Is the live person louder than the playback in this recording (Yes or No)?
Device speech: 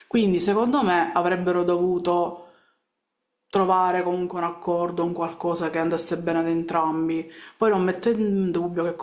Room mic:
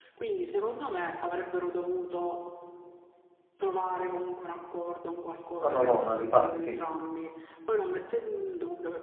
Yes